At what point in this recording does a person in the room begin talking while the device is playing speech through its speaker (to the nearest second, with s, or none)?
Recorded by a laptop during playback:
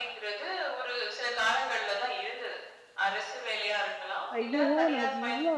4 s